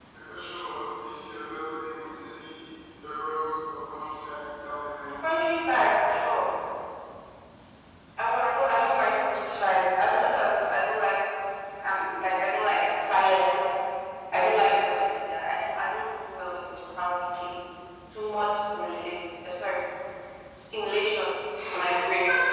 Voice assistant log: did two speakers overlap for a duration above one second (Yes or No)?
No